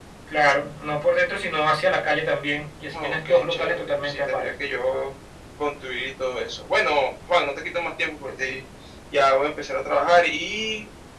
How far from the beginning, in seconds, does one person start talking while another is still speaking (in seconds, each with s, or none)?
2.9 s